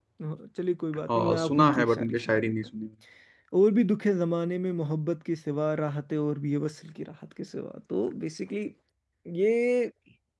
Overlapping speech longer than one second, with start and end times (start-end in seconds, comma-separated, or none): 1.1-2.5